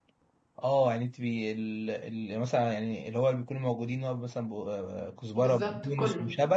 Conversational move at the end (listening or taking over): listening